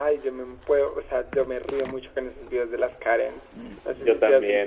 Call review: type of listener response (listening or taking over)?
listening